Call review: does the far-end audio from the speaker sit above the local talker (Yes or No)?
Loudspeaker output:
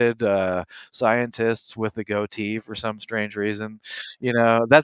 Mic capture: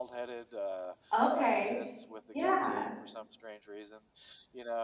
No